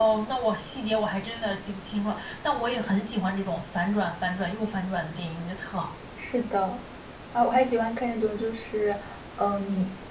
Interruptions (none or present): none